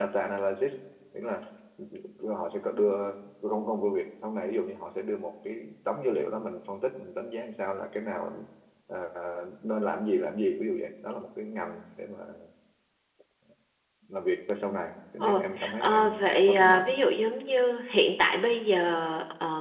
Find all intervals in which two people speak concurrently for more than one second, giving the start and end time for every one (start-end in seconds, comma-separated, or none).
15.2-16.9